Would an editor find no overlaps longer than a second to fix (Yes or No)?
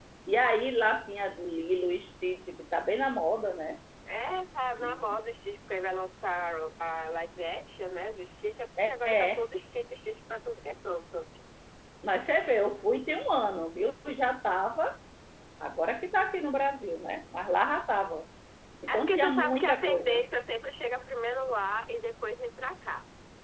No